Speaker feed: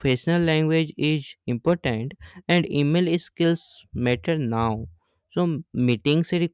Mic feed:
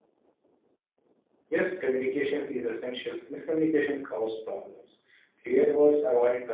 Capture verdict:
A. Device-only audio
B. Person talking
B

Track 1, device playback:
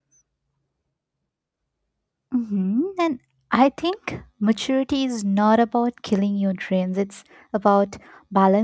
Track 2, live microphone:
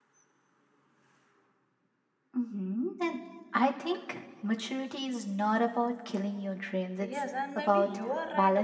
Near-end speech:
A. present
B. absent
A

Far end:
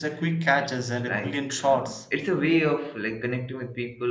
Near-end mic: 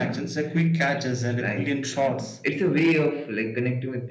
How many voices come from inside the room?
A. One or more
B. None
B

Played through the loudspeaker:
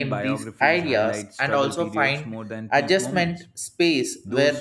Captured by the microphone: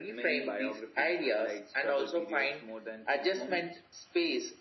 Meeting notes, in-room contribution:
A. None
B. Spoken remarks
A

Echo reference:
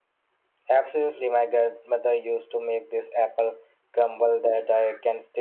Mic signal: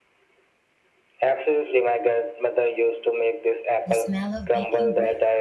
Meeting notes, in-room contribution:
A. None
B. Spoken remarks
B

